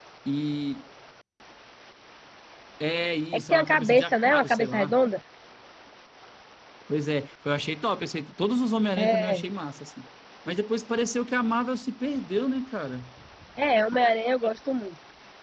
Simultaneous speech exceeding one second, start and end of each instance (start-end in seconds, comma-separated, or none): 3.3-5.0